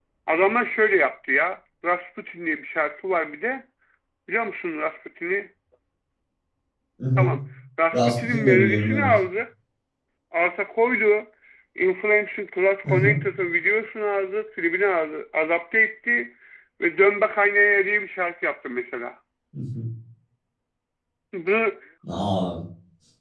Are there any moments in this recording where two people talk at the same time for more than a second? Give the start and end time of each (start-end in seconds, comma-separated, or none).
7.9-9.1